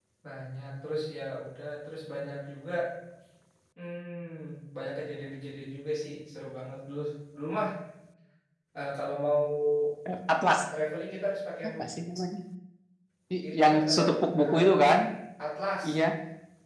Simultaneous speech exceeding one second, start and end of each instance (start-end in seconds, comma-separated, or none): 13.5-14.9